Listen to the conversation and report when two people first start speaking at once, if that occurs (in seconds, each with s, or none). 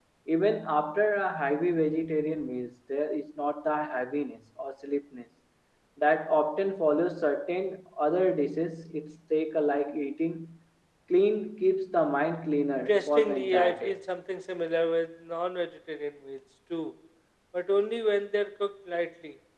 12.7 s